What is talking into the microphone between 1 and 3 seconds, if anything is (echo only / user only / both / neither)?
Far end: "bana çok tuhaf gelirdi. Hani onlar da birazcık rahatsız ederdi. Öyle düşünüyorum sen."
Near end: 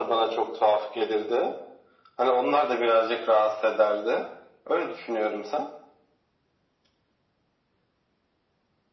echo only